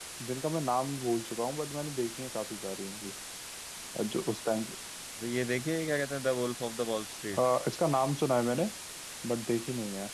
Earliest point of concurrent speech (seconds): none

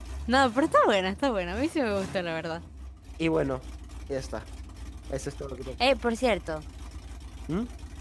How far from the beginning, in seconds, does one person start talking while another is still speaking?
none

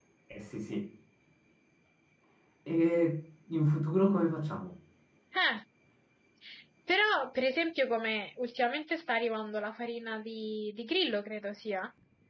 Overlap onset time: none

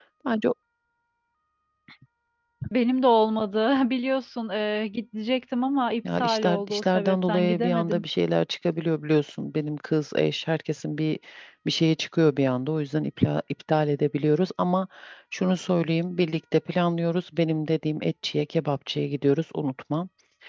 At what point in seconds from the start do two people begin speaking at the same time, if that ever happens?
6.0 s

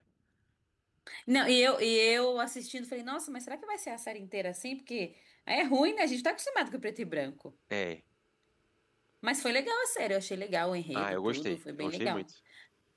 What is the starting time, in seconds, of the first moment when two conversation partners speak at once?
10.9 s

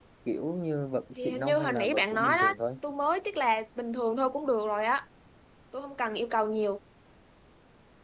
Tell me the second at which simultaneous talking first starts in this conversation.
1.2 s

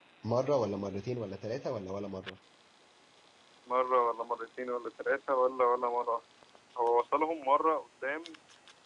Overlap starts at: none

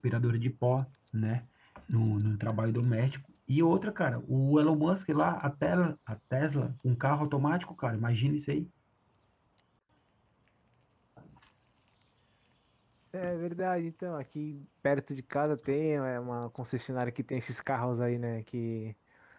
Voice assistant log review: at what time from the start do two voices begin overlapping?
none

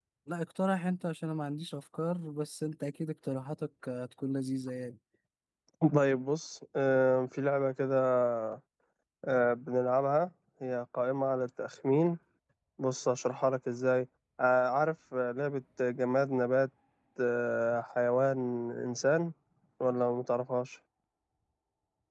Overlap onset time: none

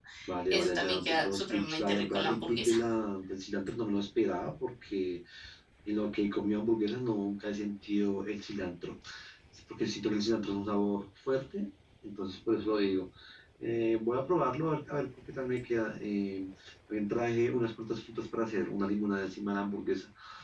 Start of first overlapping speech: 0.5 s

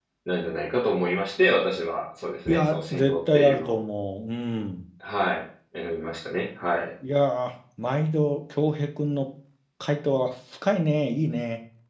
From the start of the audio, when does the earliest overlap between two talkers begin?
2.5 s

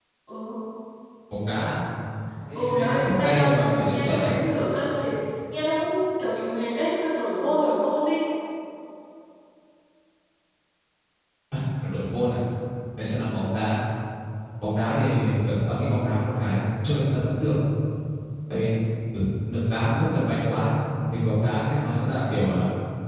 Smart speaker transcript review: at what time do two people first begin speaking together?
2.5 s

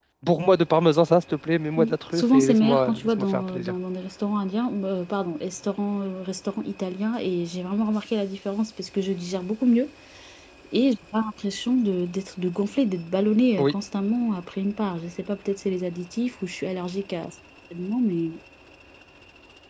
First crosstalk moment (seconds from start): 1.8 s

